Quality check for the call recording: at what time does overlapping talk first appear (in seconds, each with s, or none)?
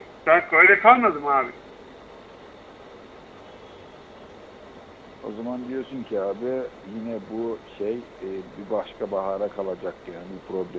none